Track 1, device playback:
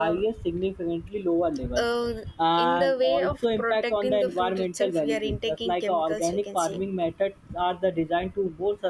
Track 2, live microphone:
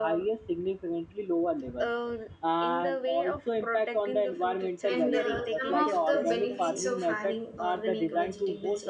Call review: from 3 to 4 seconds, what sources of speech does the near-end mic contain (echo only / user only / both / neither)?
echo only